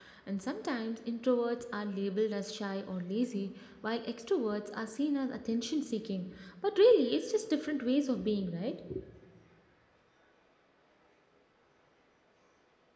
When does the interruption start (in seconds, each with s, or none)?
none